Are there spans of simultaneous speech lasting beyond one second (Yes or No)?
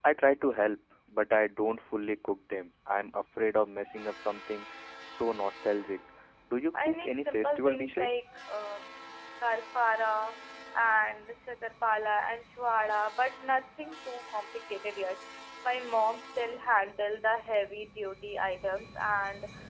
Yes